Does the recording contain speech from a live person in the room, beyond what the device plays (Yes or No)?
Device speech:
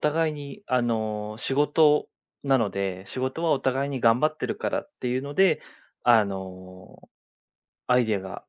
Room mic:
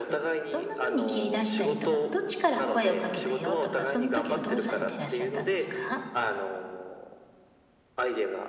Yes